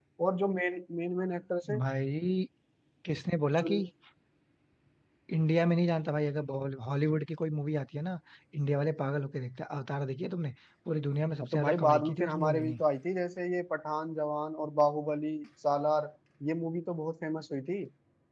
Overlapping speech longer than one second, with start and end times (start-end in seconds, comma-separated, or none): 11.4-12.8